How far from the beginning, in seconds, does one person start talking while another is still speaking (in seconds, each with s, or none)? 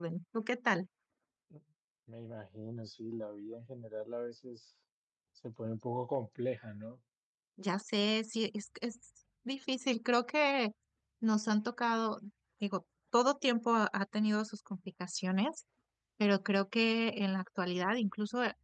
none